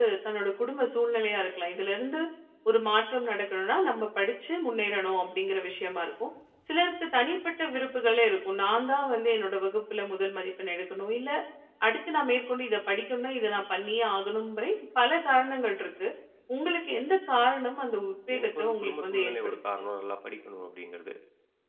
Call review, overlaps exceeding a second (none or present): present